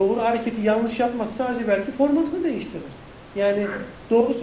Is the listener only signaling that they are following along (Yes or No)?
Yes